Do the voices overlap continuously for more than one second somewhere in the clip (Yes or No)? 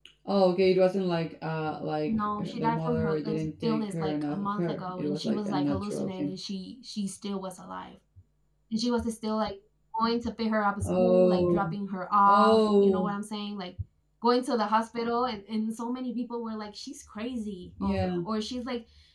Yes